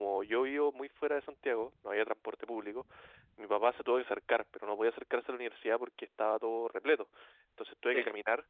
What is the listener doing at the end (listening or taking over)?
listening